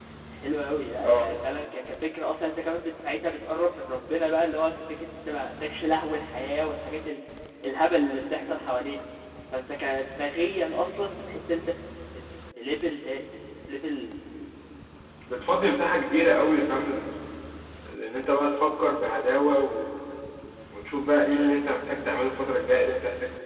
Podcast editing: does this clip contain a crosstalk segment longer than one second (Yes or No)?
No